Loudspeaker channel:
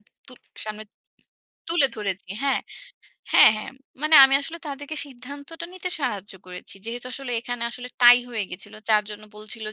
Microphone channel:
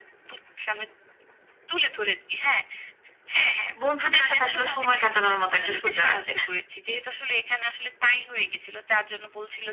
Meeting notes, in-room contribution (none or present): present